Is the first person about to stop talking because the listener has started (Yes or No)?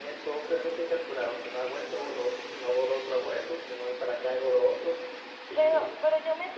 Yes